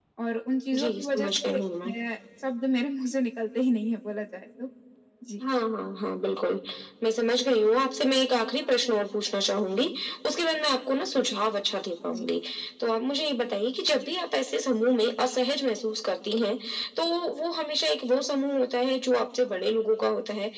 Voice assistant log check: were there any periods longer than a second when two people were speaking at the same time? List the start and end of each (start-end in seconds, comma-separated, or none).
0.7-1.9